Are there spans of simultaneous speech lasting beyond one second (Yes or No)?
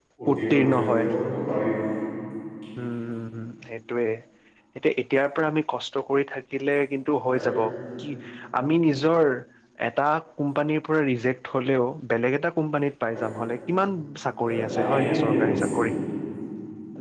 Yes